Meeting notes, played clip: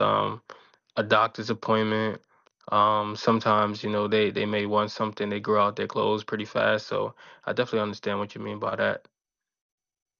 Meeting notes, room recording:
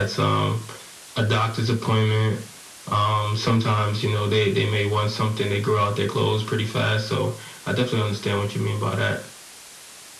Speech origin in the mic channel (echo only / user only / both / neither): echo only